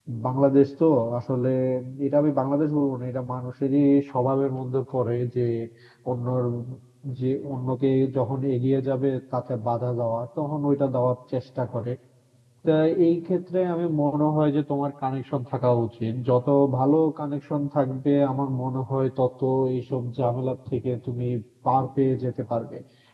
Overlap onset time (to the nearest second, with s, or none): none